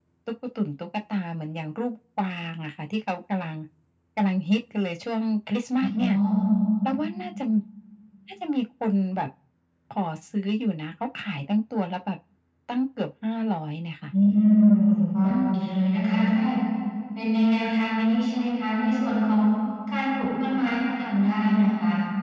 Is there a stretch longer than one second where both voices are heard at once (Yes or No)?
No